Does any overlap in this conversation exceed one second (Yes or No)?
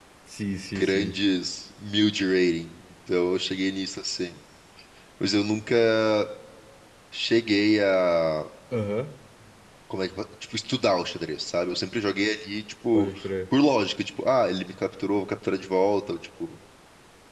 No